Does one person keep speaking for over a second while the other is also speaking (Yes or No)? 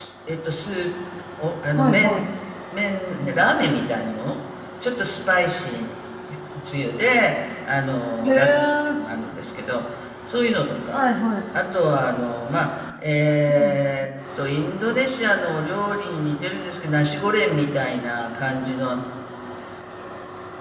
No